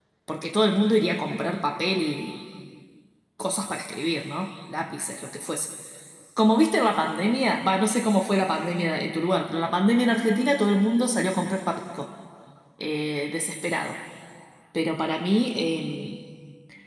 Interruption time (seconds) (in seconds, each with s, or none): none